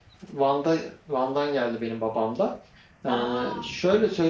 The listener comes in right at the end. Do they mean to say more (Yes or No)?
No